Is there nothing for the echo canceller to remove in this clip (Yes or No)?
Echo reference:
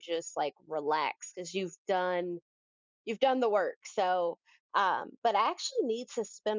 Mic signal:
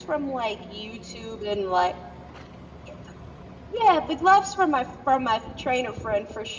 Yes